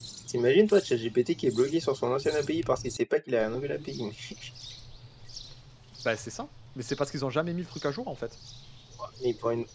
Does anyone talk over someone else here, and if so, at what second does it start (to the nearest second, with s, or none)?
none